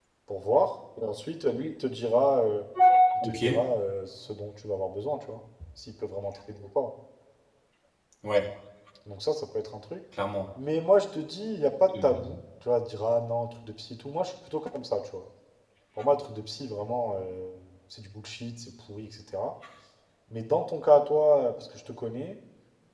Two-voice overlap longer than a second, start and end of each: none

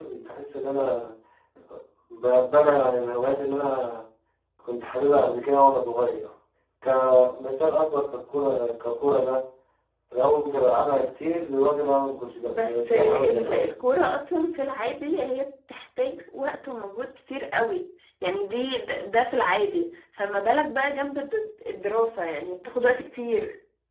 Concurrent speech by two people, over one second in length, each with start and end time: 12.4-13.7

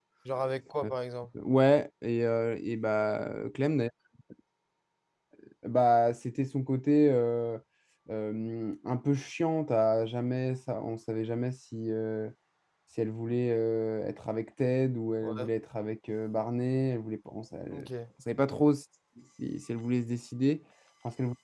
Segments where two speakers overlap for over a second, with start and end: none

